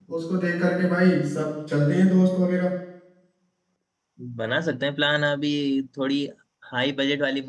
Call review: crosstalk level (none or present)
none